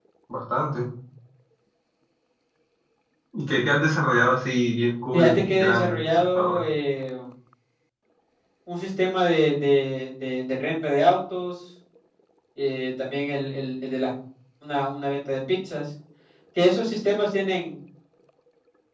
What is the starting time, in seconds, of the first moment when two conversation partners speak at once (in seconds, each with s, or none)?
5.1 s